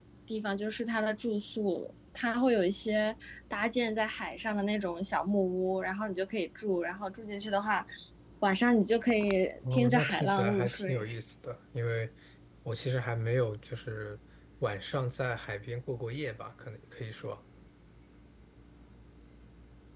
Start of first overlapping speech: 9.6 s

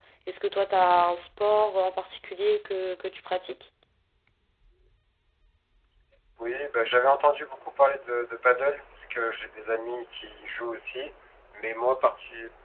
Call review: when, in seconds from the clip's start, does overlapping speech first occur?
none

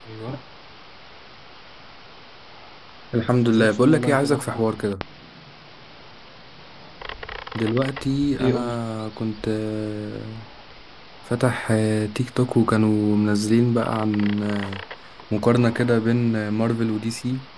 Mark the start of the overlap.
3.4 s

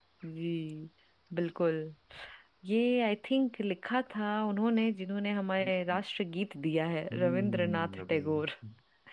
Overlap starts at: 7.1 s

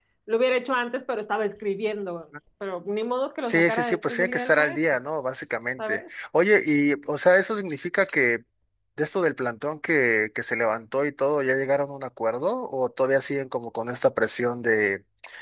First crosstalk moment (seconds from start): 3.5 s

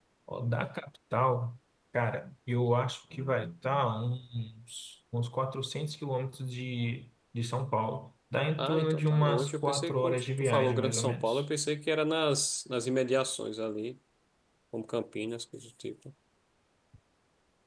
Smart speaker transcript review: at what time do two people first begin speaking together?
8.6 s

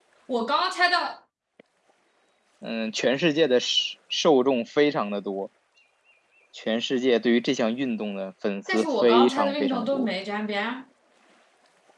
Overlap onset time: 8.7 s

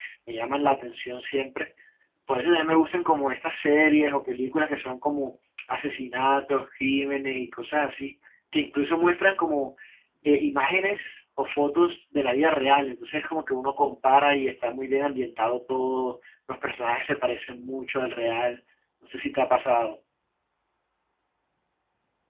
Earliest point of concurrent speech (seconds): none

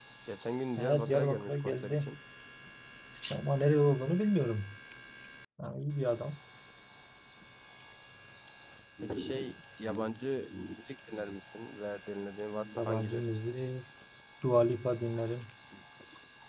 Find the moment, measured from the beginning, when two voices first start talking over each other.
0.8 s

